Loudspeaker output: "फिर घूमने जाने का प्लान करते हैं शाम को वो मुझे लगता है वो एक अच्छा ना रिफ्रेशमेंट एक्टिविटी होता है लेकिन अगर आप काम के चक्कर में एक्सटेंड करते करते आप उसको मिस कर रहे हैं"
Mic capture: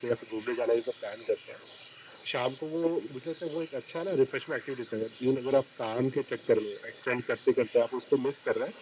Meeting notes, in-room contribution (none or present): none